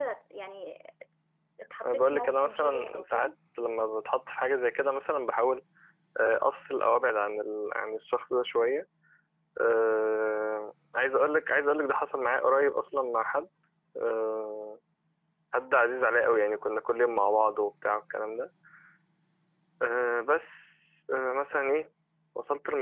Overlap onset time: 2 s

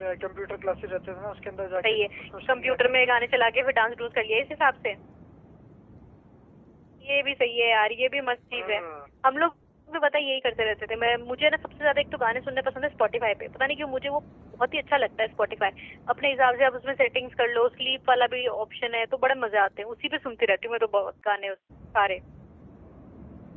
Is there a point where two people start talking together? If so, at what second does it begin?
2 s

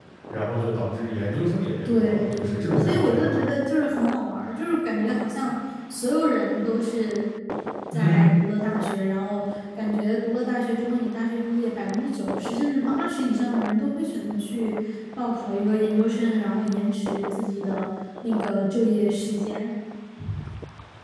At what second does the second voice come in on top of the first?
2 s

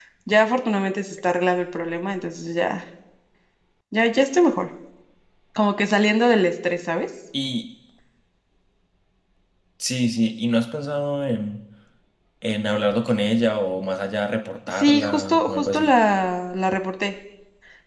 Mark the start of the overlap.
15 s

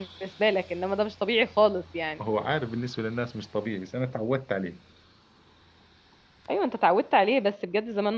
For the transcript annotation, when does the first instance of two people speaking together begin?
none

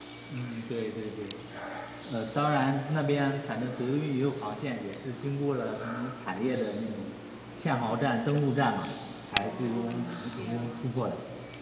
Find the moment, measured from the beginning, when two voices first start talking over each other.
9 s

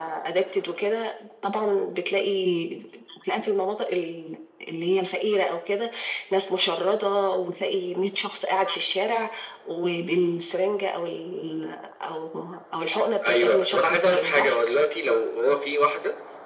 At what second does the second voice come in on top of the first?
13 s

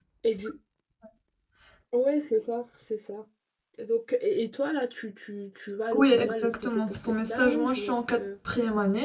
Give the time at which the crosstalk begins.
6 s

